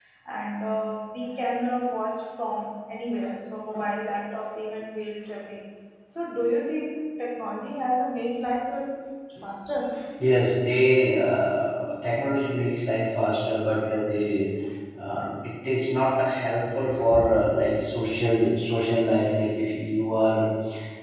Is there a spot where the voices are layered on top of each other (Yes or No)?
No